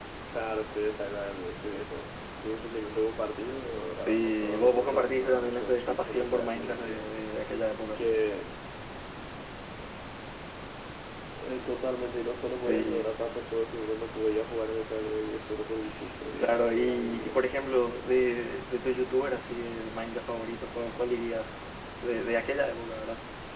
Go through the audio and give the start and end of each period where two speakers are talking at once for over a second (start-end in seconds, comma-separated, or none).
4.1-7.0, 16.4-18.4